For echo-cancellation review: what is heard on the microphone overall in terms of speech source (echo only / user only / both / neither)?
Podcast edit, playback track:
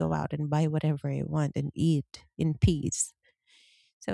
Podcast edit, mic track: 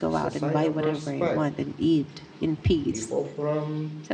both